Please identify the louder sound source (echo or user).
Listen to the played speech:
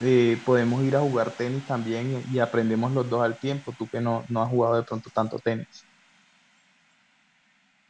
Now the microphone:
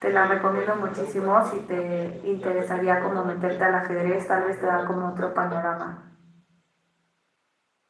user